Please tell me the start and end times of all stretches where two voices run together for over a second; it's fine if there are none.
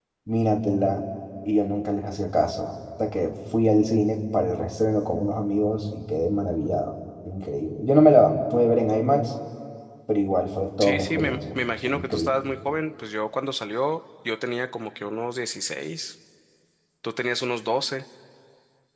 10.8-12.3

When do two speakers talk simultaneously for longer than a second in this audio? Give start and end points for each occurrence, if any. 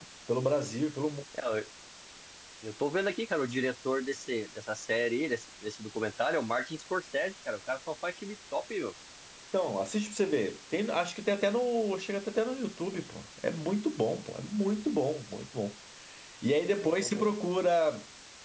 none

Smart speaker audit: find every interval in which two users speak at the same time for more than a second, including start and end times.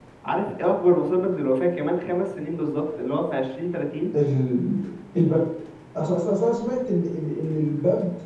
none

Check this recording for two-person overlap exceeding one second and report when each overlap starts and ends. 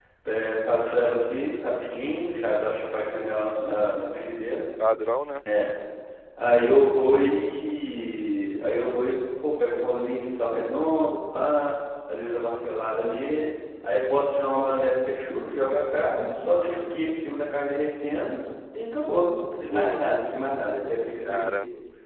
none

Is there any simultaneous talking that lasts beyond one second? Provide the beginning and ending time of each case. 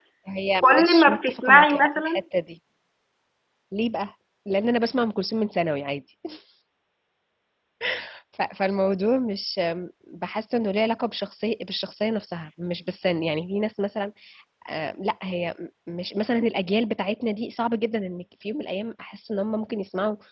0.6-2.2

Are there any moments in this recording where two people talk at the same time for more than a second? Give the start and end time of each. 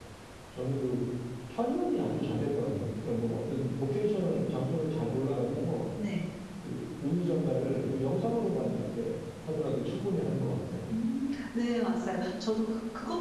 none

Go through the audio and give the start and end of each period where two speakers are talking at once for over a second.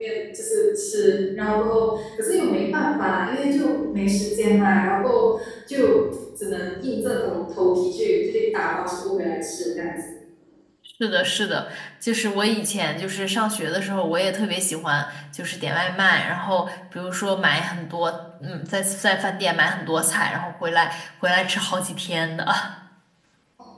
none

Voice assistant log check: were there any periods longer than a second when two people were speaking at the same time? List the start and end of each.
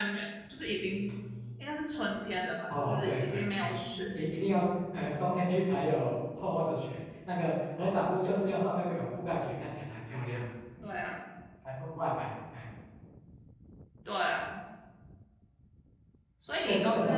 2.7-4.0

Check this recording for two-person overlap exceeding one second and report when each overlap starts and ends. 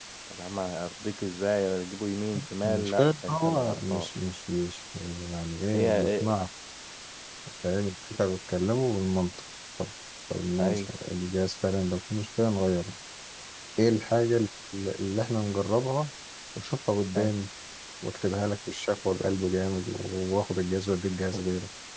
2.6-4.1

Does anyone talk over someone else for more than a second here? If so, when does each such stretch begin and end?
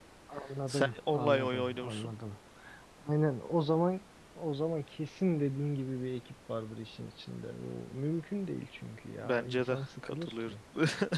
0.7-2.1, 9.2-10.6

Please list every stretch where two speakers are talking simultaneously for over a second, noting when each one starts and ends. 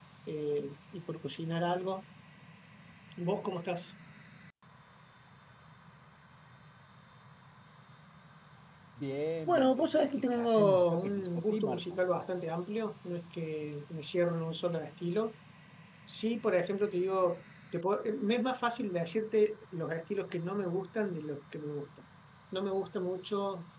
9.5-12.0

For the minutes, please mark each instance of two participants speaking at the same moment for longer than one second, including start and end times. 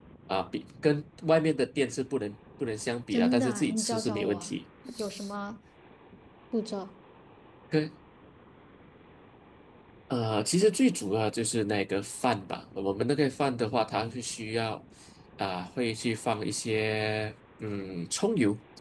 3.1-4.5

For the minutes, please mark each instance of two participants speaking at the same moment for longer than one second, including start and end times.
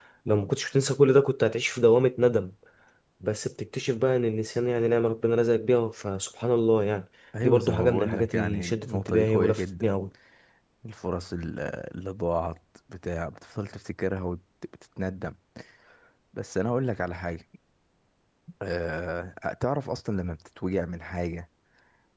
7.4-9.9

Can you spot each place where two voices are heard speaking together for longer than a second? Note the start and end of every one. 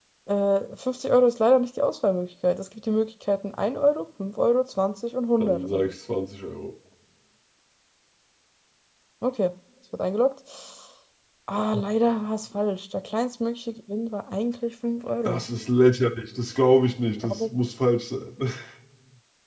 none

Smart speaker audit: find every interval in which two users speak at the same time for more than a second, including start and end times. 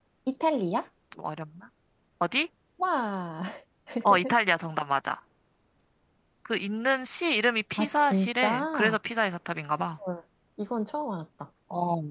7.8-9.0

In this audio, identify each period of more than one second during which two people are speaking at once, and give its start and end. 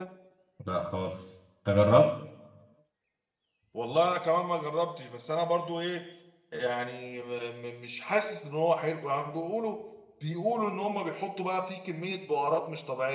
none

